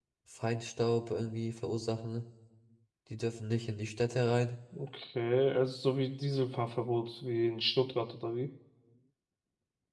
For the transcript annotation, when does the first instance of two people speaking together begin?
none

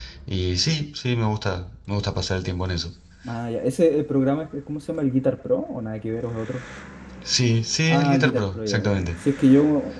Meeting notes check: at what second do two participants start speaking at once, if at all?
7.9 s

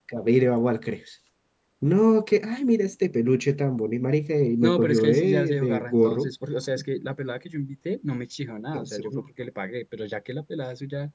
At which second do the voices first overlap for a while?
4.6 s

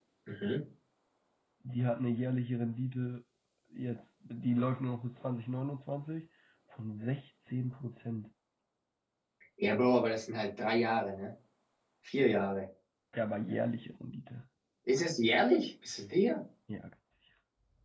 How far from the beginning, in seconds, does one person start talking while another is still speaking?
none

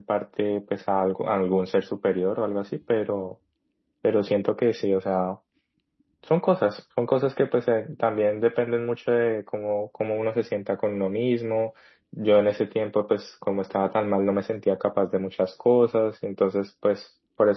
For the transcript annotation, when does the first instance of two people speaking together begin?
none

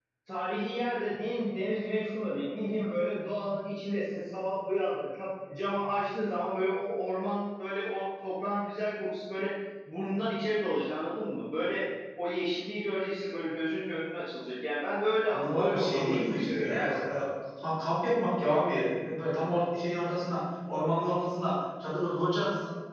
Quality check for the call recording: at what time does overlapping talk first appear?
15.3 s

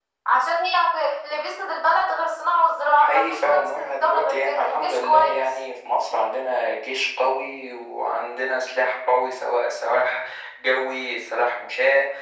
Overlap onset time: 2.9 s

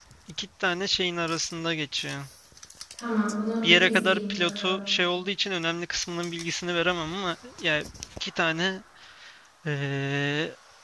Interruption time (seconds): 3.6 s

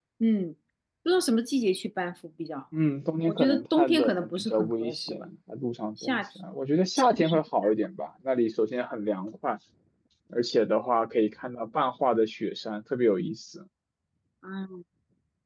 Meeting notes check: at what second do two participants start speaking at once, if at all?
3.3 s

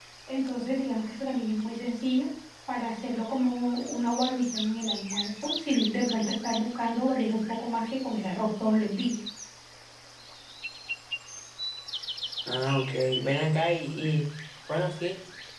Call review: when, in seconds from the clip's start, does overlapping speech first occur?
none

